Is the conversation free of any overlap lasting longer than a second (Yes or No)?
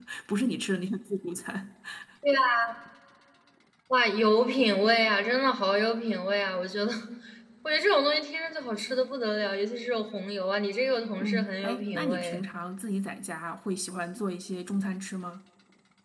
No